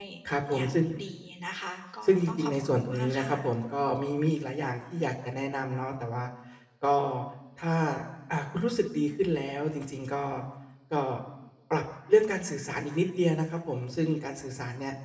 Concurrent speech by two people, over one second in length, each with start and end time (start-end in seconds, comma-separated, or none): 2.0-3.4